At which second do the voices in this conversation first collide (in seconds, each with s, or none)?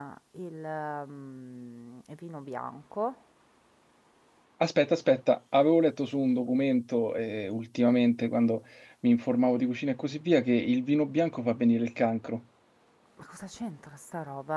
none